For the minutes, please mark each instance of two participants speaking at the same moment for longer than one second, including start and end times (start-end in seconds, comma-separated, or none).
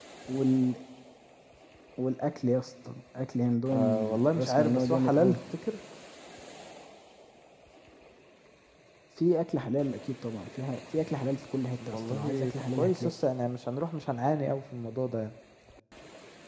3.7-5.4, 11.9-13.1